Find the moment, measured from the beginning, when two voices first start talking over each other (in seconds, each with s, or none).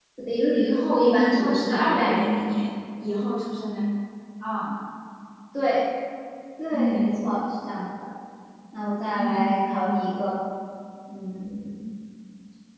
1.0 s